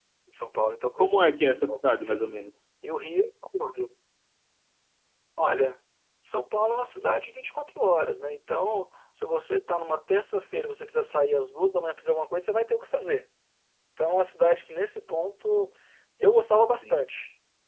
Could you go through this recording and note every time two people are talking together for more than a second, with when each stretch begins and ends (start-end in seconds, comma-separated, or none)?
1.0-2.3